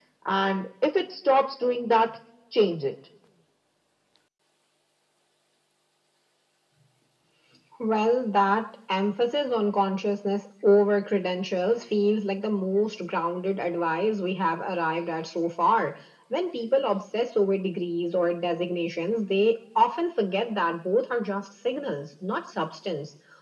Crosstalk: none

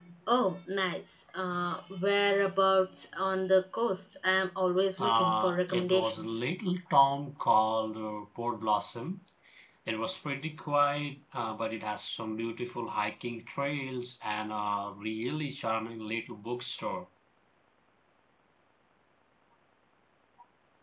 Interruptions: present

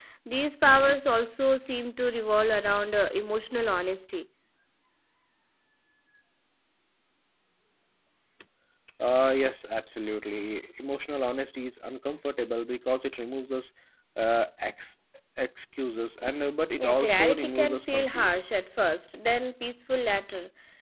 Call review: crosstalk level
present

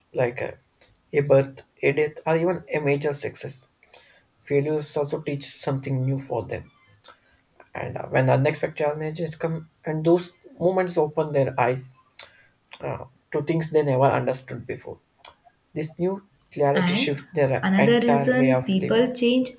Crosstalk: present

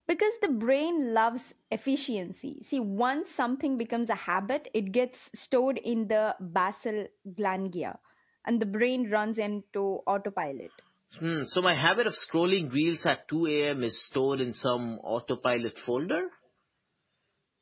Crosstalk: none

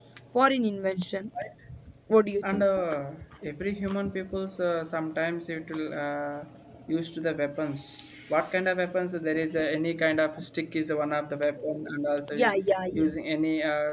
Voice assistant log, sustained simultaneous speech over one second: none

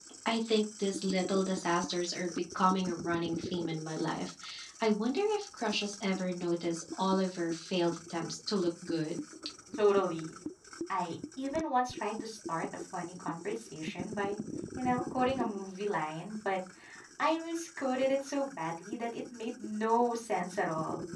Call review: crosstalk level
none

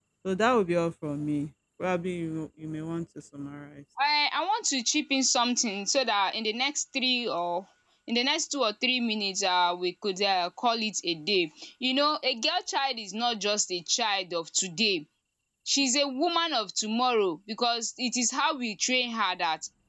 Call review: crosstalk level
none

